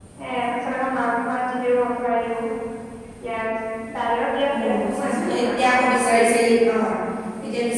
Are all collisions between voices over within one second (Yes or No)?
No